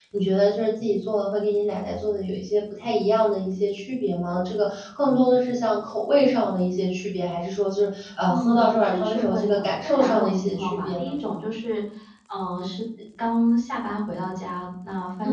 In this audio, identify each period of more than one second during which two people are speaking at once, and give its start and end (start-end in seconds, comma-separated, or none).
8.3-11.1